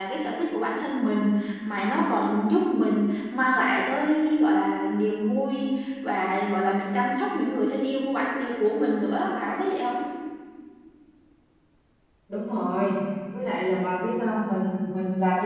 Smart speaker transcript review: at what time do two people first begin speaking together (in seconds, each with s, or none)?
none